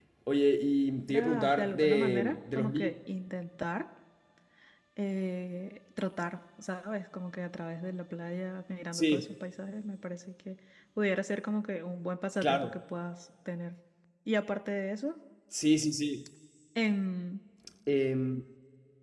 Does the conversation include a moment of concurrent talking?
Yes, from 1.1 s

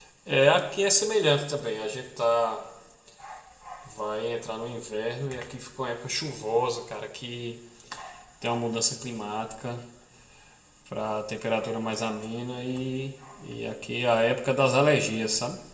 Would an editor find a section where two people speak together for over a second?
No

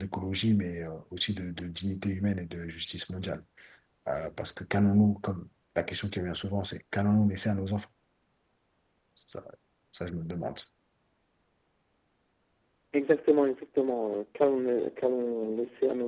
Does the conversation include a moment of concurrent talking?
No

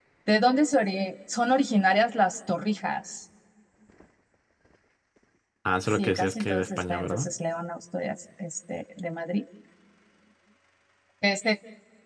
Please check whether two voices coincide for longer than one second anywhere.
Yes, from 5.9 s

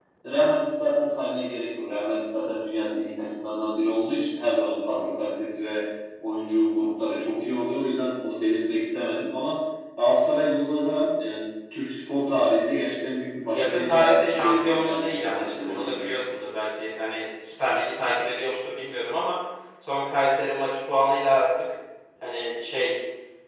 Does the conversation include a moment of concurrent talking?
Yes, from 13.5 s

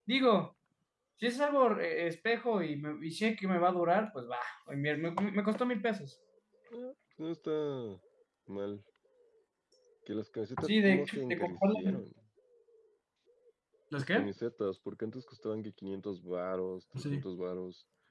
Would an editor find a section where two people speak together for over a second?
Yes, from 10.6 s

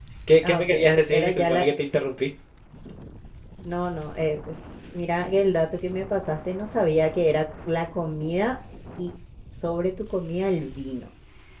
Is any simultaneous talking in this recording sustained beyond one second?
No

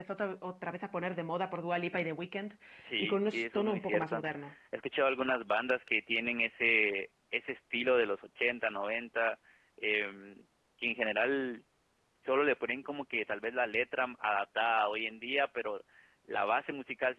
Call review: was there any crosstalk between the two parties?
Yes, from 3.0 s

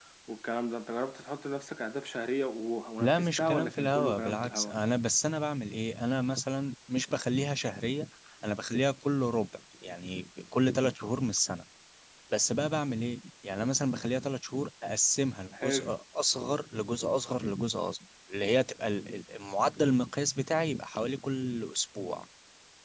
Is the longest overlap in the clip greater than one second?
Yes, from 3.0 s

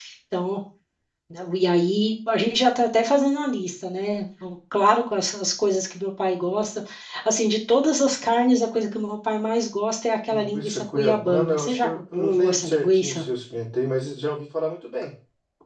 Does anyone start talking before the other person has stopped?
Yes, from 10.3 s

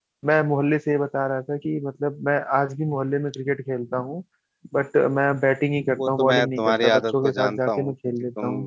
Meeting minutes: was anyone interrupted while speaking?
Yes, from 6.0 s

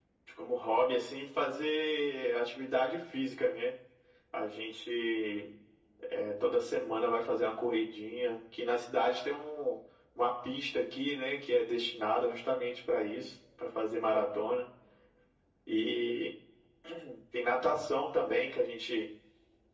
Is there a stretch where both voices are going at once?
No

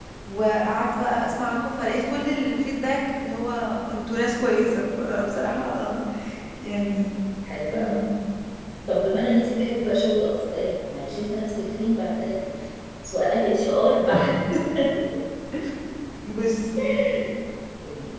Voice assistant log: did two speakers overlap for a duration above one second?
No

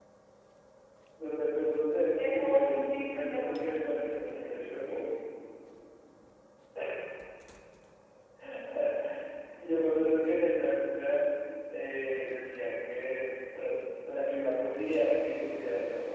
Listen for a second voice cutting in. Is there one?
Yes, from 2.2 s

